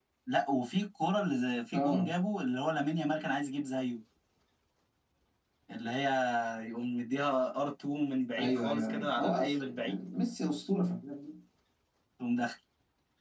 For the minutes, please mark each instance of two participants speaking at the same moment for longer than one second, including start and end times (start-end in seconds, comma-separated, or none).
8.4-10.0